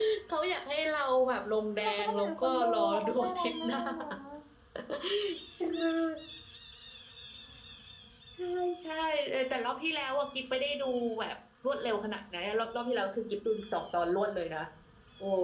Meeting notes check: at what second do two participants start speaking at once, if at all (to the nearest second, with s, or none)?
2 s